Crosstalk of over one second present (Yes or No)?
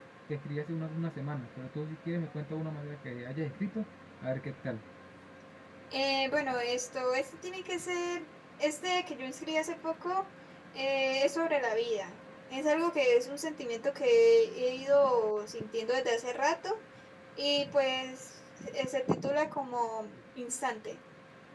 No